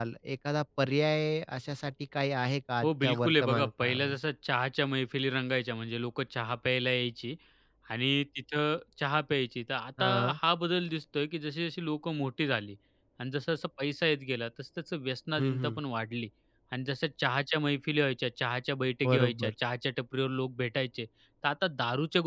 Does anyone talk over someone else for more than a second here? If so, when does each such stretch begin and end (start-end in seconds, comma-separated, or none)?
2.8-4.2